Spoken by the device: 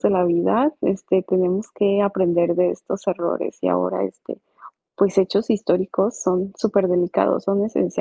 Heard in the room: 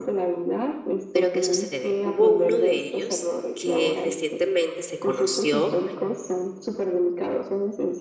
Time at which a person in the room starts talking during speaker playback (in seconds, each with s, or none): 1.1 s